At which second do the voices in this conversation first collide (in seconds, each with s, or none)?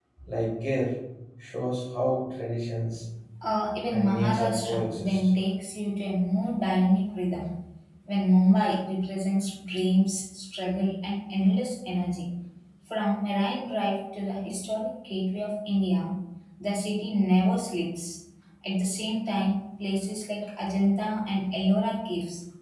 3.9 s